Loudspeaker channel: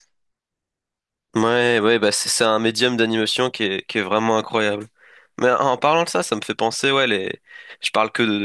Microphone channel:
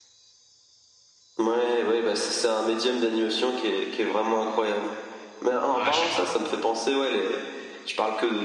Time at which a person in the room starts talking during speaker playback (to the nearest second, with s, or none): 6 s